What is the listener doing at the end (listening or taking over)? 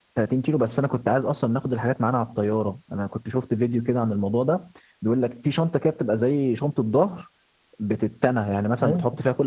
listening